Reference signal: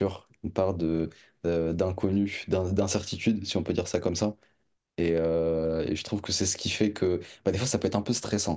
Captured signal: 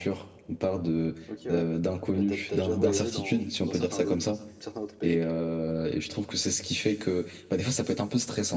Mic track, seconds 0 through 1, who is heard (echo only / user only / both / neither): echo only